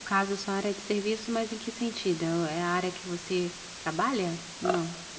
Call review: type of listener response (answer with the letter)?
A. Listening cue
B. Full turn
B